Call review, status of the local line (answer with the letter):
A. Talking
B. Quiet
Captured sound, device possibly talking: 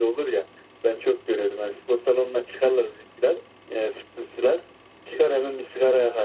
B